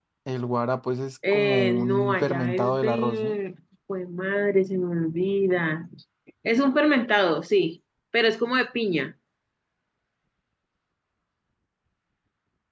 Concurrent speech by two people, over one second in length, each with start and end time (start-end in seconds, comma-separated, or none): 1.3-3.4